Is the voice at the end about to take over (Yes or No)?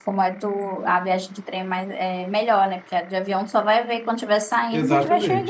Yes